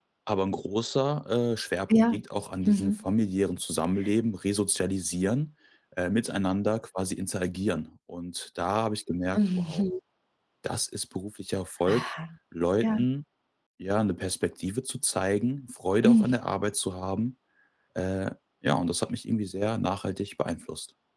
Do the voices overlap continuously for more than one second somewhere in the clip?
No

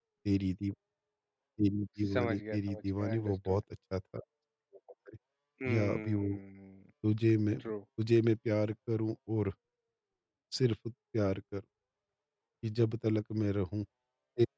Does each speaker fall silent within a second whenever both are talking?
No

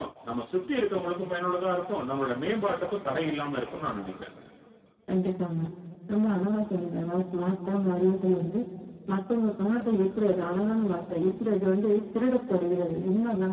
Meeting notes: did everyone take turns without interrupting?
Yes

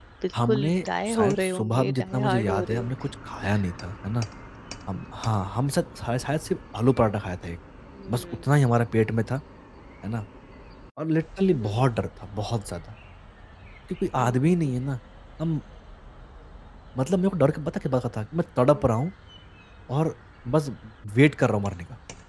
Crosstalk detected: Yes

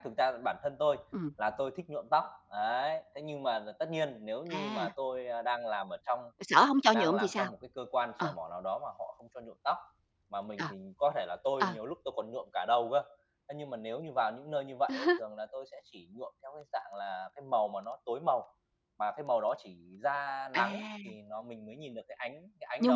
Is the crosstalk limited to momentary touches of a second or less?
Yes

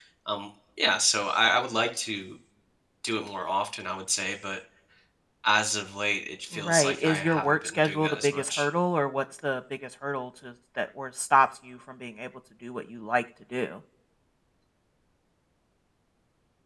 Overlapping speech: Yes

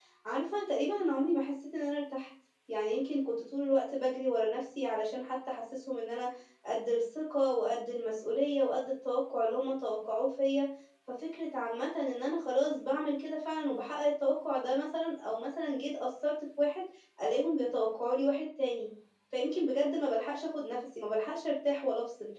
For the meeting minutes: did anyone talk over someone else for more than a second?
No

